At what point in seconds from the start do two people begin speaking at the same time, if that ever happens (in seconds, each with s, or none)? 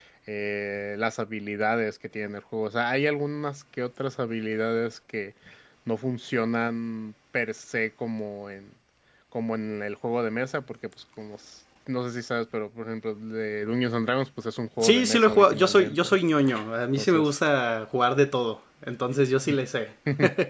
14.8 s